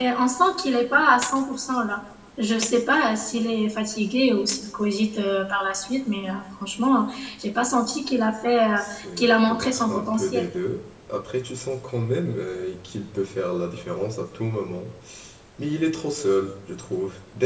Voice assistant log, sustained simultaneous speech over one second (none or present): present